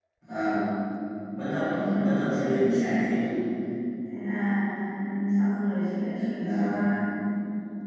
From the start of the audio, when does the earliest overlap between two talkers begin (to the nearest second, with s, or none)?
2 s